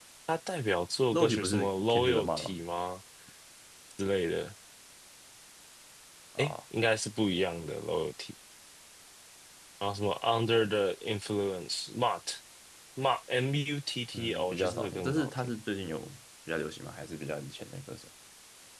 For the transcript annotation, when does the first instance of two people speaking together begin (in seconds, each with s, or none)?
1.1 s